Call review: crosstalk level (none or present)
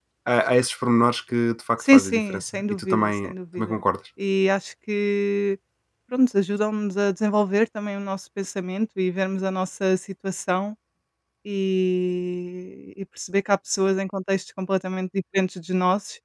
present